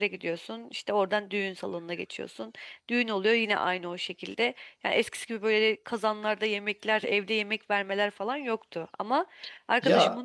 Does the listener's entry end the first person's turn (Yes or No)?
No